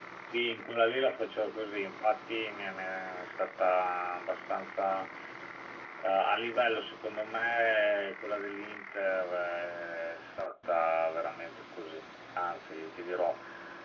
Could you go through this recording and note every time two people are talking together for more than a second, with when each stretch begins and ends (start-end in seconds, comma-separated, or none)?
none